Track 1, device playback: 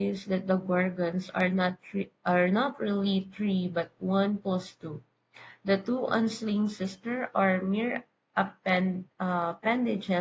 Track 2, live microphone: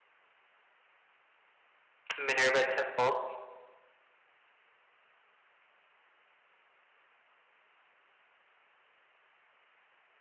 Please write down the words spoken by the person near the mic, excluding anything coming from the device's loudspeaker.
Minerva temple,

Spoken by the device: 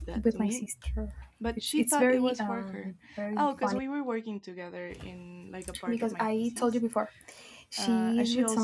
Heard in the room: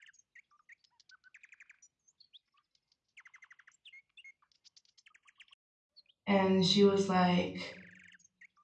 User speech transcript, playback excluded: and she was like,

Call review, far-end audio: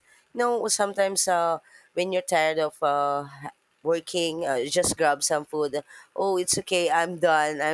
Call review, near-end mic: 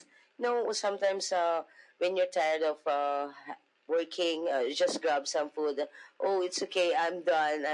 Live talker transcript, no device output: none

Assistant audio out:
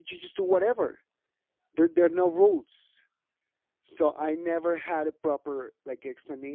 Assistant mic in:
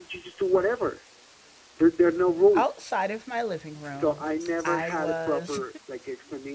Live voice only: outside of my living room i was

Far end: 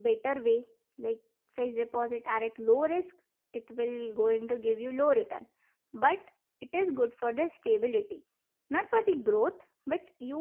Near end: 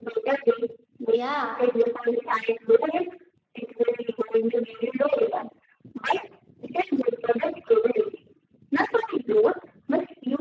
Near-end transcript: yeah,

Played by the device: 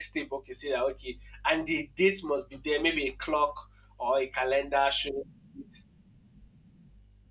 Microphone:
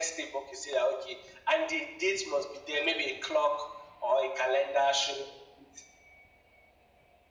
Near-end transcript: none

